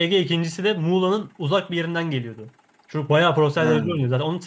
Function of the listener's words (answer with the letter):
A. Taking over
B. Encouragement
B